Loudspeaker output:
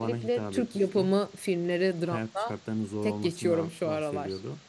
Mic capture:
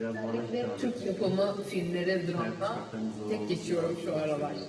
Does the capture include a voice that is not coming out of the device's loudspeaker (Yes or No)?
No